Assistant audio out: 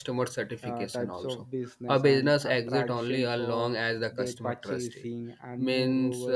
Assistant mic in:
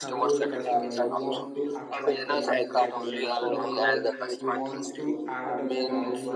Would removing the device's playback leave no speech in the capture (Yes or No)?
No